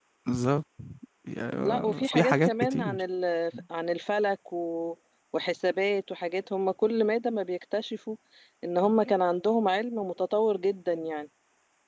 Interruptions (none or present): present